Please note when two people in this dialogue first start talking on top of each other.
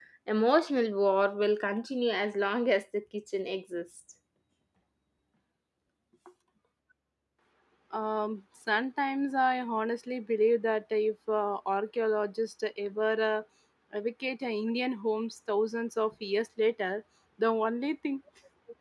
none

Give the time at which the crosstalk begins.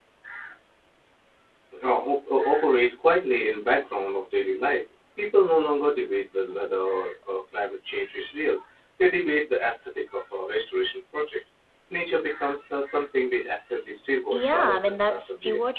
14.3 s

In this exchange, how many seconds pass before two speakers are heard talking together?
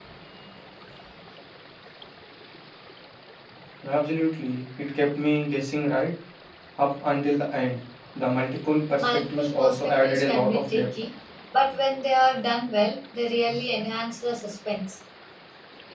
9.0 s

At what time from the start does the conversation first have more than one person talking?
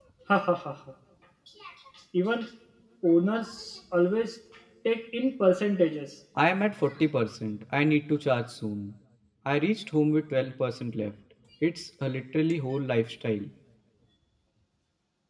none

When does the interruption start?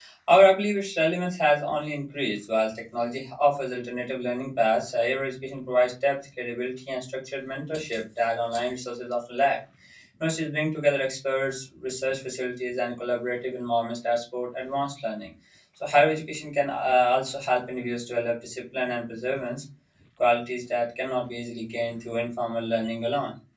none

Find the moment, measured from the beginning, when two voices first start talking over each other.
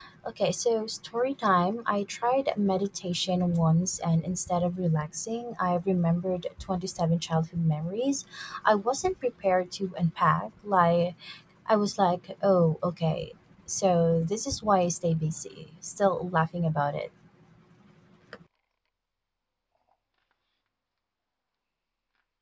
none

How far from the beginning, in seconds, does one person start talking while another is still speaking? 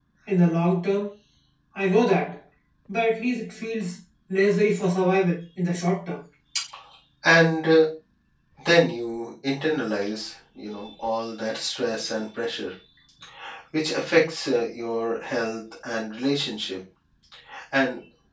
none

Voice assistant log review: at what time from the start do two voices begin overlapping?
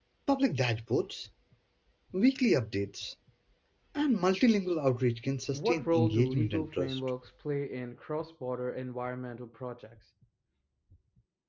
5.5 s

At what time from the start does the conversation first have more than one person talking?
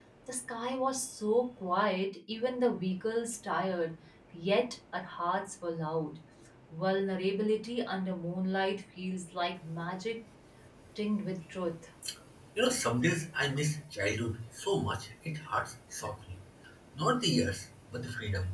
none

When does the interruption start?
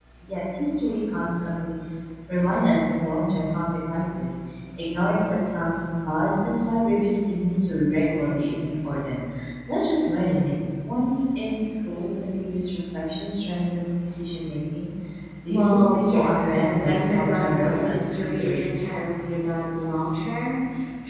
15.5 s

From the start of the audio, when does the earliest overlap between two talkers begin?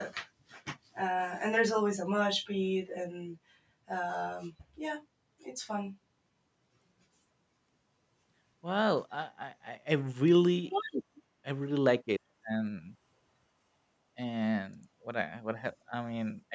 none

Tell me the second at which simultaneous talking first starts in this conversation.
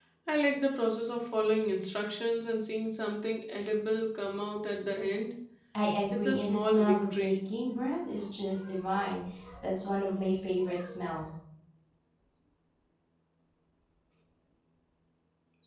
6.1 s

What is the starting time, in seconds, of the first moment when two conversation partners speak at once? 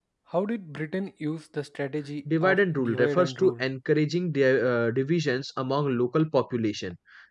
2.3 s

